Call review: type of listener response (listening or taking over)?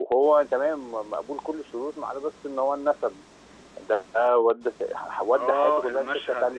taking over